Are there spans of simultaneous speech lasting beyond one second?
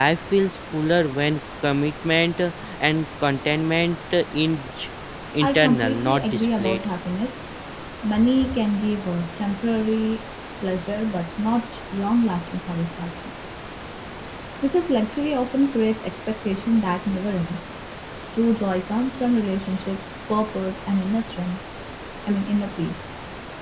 Yes, from 5.4 s

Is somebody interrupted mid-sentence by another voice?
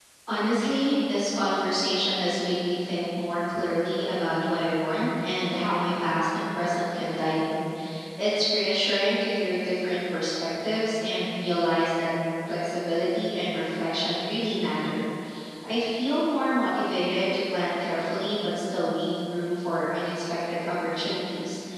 No

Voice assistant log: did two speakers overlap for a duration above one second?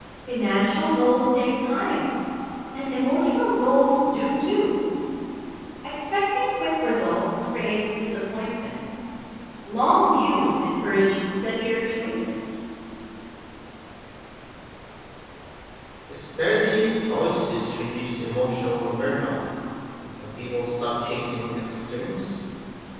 No

